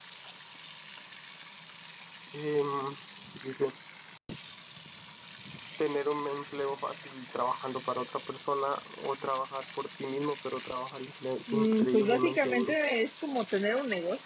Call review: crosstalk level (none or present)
present